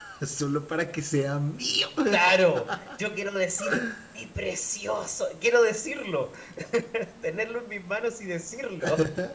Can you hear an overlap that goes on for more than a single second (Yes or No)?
No